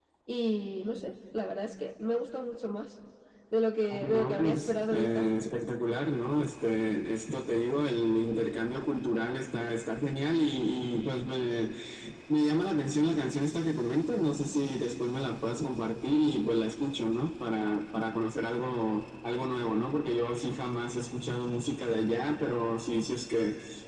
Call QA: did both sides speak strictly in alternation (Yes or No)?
No